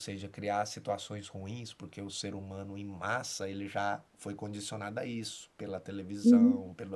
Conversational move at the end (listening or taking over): listening